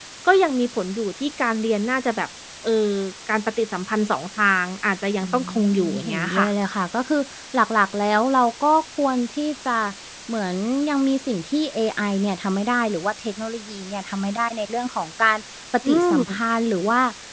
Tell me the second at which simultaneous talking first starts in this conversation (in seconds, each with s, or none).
5.2 s